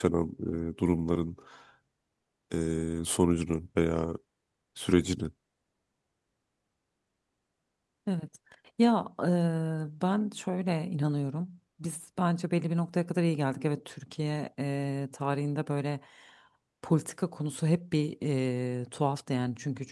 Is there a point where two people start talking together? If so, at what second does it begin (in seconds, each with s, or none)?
none